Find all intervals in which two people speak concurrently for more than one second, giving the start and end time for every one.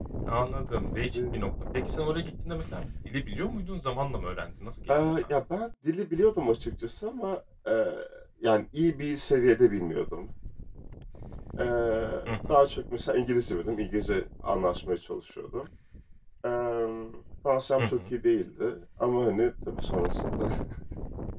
none

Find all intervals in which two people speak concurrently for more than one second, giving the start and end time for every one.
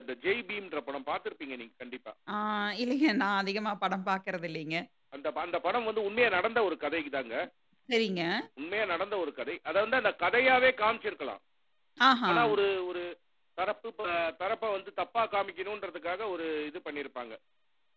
none

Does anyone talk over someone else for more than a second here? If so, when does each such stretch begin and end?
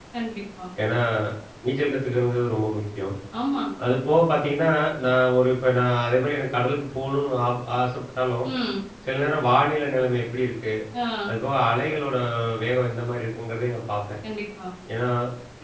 none

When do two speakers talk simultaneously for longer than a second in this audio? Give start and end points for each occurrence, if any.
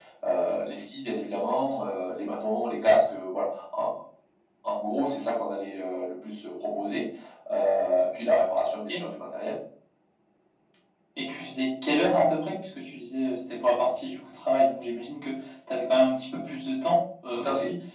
none

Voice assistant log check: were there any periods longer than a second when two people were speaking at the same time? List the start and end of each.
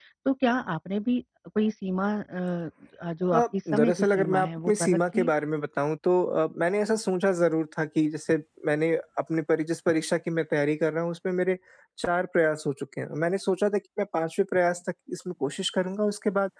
3.3-5.3

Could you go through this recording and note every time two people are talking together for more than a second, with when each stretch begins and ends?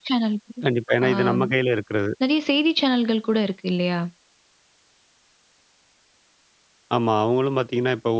none

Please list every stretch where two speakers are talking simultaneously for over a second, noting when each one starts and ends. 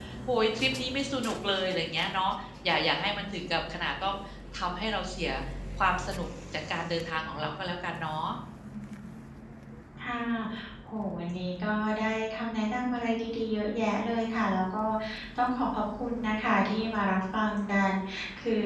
none

